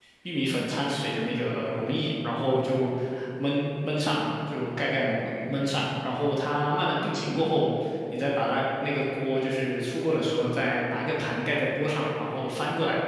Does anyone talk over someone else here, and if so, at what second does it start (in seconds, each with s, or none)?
none